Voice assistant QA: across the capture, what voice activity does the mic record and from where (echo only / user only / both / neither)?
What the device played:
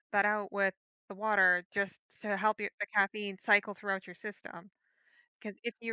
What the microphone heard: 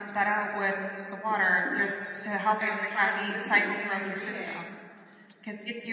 both